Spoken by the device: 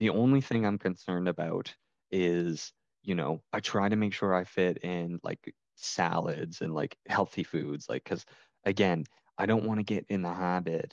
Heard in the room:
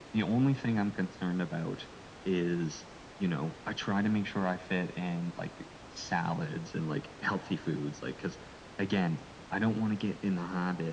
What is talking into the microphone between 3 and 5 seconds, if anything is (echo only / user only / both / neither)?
echo only